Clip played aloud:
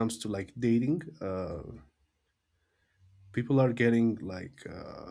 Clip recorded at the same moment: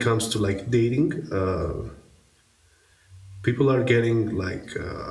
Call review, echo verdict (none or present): present